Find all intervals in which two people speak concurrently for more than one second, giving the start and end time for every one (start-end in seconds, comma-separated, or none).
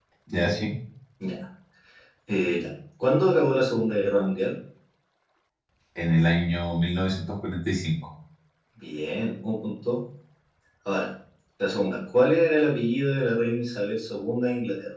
none